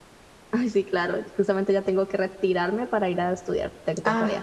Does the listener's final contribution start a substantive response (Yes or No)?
Yes